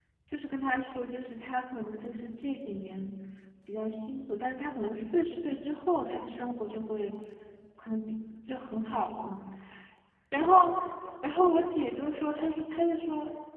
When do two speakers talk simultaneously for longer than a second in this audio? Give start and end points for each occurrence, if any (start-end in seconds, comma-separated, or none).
none